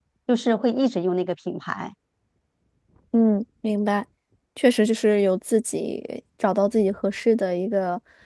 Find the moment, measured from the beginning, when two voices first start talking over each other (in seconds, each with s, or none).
none